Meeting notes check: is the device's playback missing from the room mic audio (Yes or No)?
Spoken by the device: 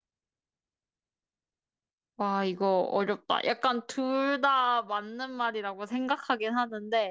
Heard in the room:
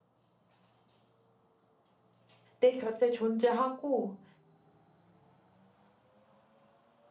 Yes